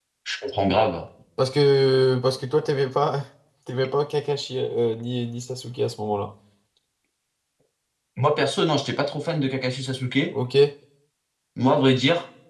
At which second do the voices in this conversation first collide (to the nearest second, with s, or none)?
none